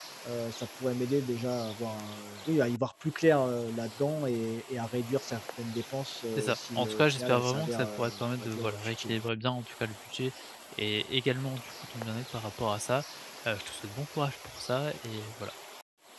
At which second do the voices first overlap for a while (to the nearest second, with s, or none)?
6 s